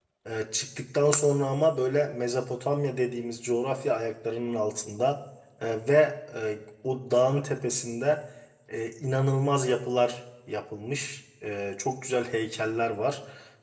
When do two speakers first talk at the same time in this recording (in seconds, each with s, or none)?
none